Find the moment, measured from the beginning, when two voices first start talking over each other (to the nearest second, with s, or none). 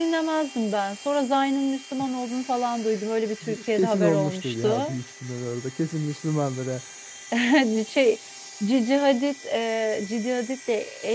3 s